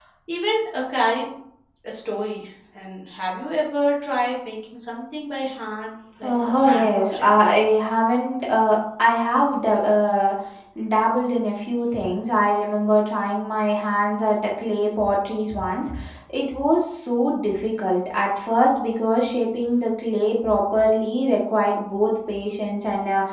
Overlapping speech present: Yes, from 6.2 s

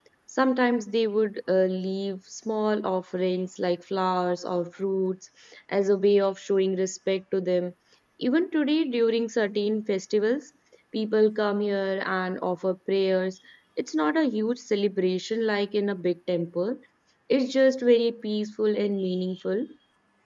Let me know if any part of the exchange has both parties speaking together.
No

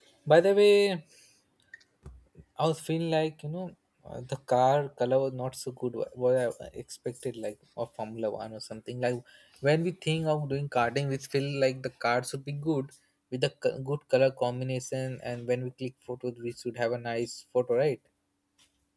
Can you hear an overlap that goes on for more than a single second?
No

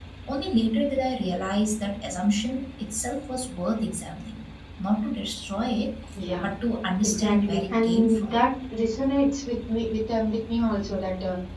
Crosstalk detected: Yes, from 7.0 s

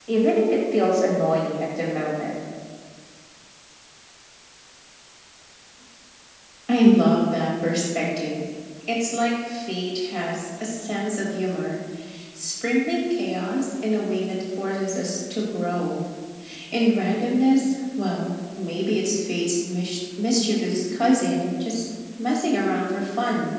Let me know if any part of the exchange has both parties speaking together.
No

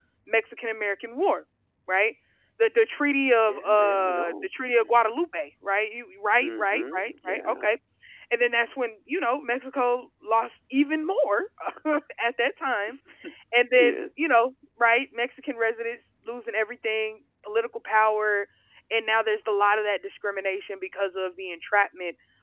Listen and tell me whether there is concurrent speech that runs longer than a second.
Yes, from 3.5 s

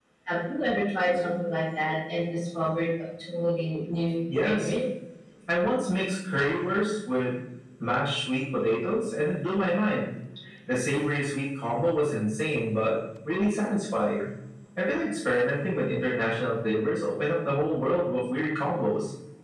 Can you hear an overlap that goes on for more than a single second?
No

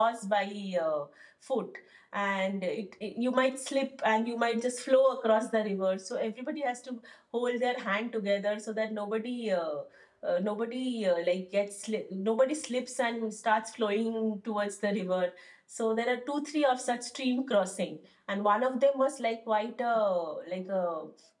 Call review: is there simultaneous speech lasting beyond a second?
No

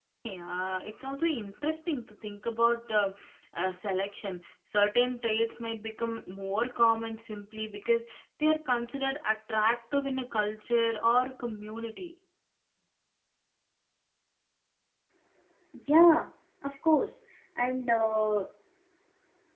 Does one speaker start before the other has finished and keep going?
No

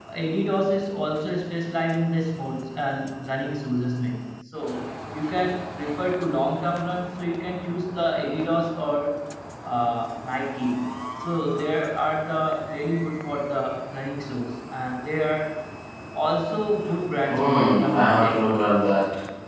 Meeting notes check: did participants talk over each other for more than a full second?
Yes, from 17.3 s

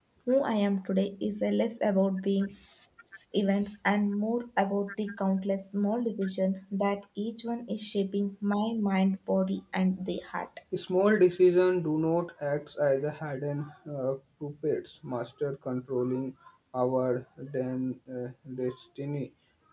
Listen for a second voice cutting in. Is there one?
No

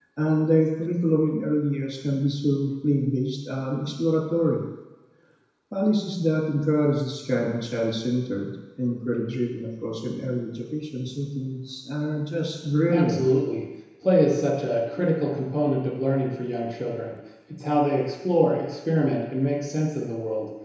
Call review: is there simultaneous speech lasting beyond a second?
No

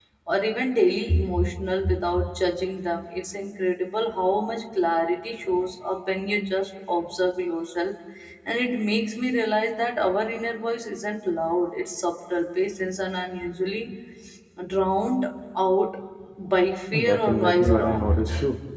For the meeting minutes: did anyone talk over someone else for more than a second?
Yes, from 16.9 s

